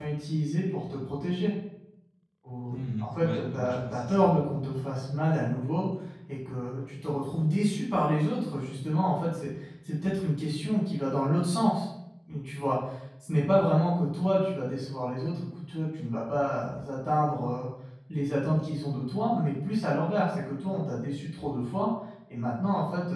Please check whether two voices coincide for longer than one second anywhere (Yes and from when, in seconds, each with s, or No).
Yes, from 2.7 s